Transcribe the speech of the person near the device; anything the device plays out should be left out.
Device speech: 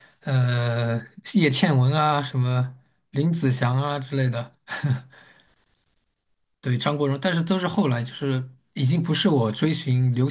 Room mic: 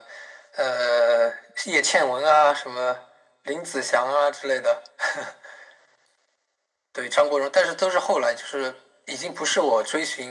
none

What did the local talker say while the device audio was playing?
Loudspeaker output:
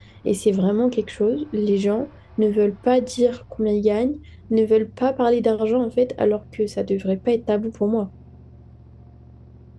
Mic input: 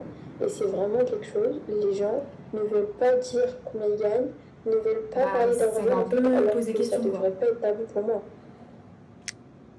bah ça va un peu poser question quoi.

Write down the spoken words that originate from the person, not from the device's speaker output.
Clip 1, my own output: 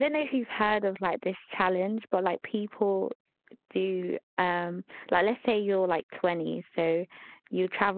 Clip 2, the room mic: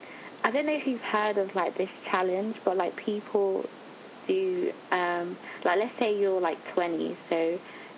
none

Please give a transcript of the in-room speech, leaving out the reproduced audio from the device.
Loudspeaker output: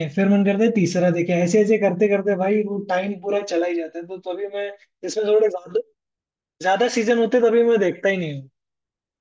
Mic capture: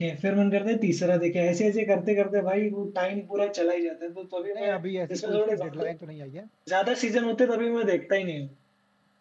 नहीं अभी ऐसी कोई उसकी डेडलाइन तो नहीं आई है

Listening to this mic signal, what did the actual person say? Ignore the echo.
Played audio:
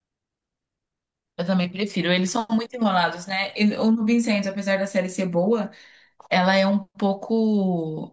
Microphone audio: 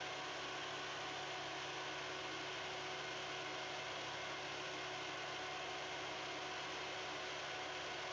none

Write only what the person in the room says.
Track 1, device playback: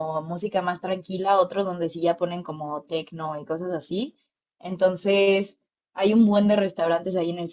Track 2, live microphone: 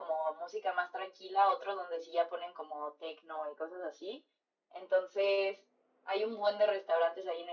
none

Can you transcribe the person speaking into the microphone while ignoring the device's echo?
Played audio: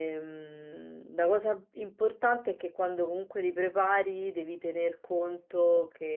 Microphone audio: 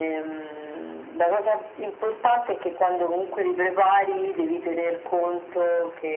none

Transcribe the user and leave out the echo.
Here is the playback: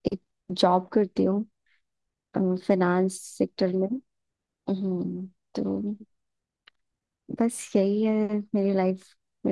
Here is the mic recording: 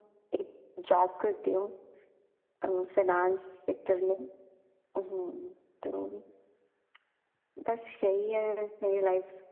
none

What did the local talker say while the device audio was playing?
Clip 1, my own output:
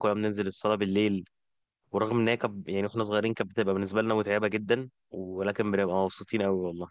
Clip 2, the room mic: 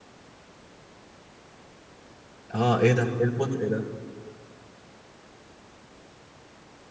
اه ايه ده ايه البطء ده

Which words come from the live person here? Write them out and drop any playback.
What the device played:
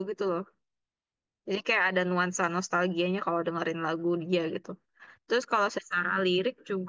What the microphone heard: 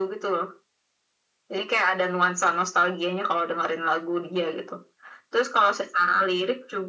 none

